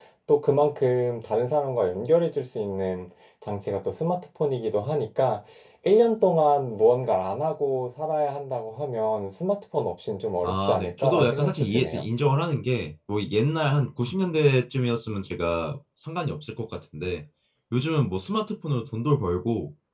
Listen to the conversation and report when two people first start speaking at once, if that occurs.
10.4 s

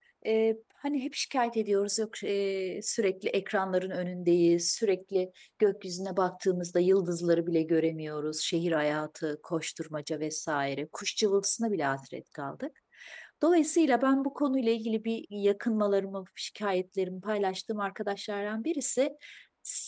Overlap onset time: none

